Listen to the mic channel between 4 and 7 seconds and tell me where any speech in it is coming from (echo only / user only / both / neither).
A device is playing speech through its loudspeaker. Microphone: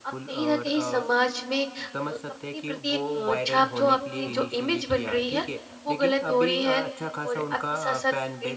both